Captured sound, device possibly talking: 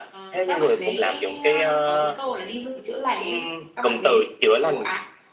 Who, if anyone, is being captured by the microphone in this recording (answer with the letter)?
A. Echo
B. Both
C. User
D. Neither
B